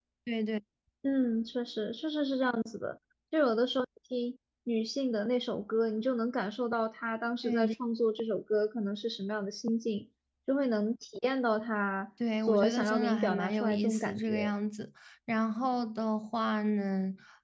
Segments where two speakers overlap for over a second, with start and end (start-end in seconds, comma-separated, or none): 12.5-14.5